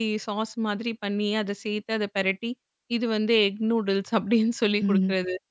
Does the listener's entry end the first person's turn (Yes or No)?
Yes